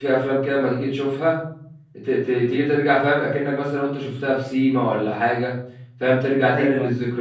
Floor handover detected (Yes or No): No